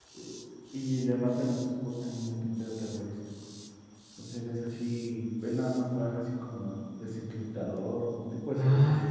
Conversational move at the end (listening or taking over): taking over